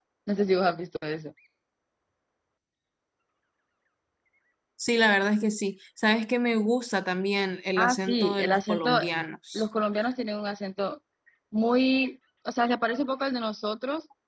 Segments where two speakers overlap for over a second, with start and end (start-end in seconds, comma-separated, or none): 7.8-9.0